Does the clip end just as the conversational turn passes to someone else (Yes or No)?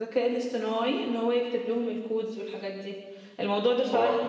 No